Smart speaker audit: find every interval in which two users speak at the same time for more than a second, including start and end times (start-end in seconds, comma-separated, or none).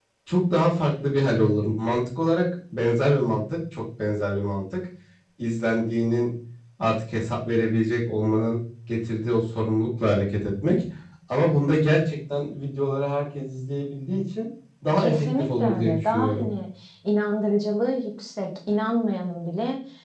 15.0-16.5